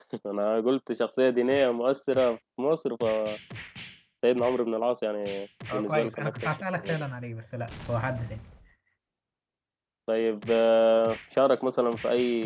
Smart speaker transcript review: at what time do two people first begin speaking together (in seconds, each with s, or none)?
5.7 s